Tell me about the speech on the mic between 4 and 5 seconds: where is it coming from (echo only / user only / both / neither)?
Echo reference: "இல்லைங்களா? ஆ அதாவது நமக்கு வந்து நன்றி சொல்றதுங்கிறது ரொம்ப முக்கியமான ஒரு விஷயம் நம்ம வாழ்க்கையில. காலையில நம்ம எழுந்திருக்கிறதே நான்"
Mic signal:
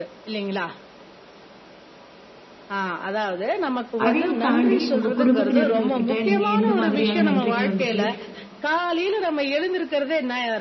both